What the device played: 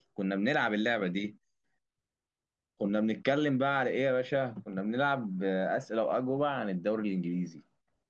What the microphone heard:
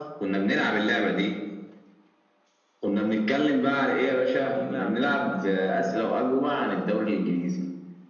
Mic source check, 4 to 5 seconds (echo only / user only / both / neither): both